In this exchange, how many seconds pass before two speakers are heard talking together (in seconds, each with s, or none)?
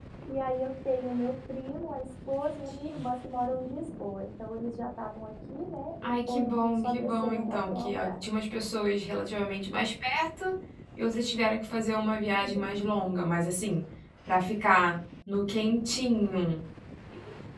6.0 s